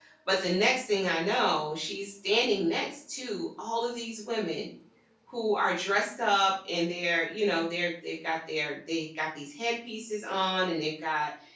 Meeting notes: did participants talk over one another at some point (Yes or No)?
No